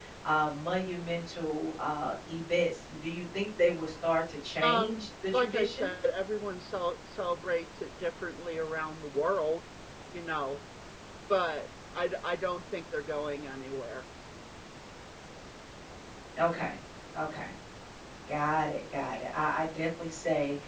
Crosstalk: present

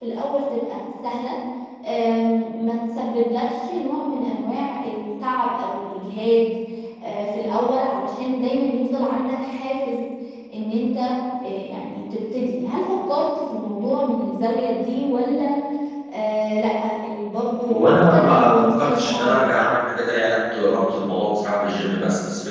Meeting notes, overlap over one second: present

